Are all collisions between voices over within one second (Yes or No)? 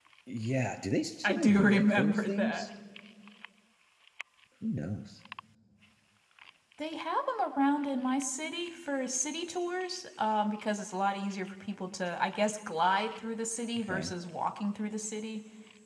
No